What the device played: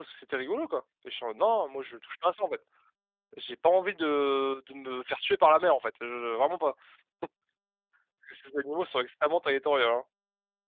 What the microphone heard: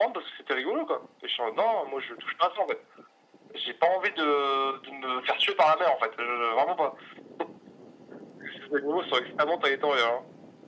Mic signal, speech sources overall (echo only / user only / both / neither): echo only